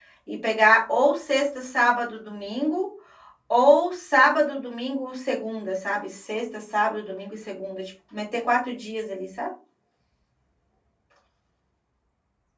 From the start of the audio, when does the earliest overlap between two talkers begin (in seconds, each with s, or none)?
none